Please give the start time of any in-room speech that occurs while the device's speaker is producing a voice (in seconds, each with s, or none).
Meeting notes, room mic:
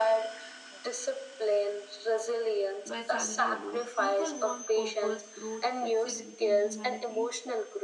2.9 s